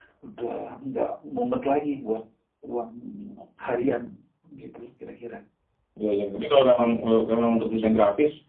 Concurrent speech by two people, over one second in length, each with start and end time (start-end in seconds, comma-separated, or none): none